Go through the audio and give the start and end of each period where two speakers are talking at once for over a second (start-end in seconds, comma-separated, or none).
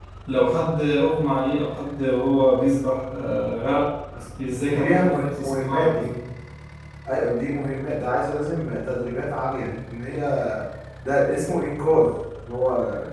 4.7-6.1